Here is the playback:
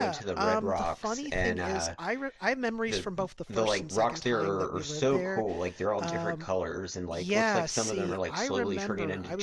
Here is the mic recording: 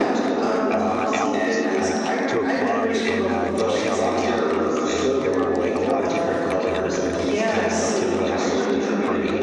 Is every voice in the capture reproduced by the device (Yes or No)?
No